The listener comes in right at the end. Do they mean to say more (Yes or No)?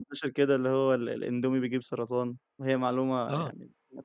Yes